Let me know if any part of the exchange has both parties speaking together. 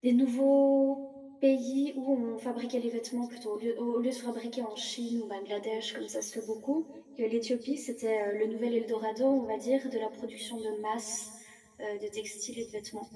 No

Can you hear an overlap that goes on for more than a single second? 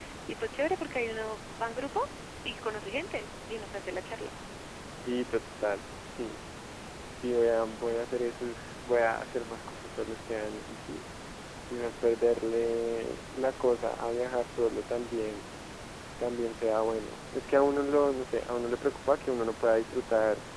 No

